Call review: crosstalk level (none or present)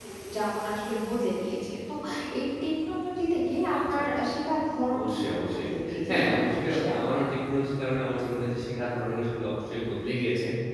present